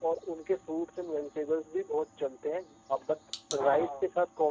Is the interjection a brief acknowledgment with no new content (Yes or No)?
Yes